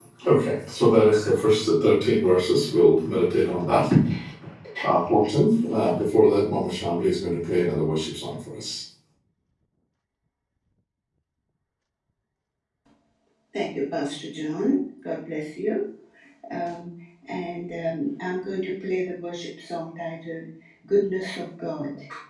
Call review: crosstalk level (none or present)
none